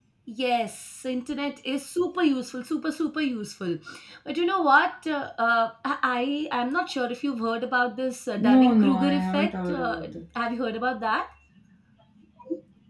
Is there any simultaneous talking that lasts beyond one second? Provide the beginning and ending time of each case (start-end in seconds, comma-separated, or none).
8.4-10.0